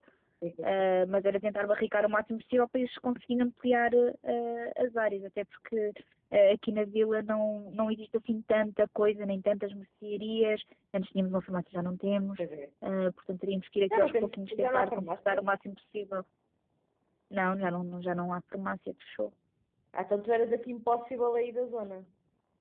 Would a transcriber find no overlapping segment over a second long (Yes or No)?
No